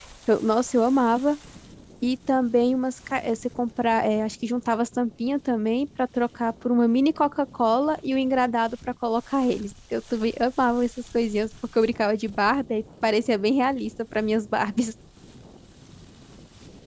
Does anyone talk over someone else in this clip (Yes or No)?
No